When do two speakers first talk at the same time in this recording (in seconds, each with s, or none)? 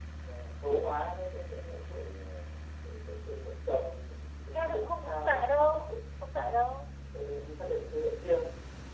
4.5 s